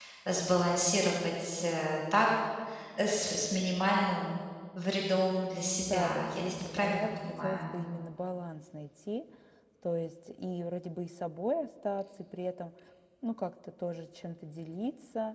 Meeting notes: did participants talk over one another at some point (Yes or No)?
Yes